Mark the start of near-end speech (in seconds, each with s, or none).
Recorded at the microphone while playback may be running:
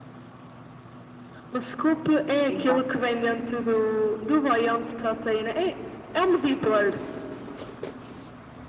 2.5 s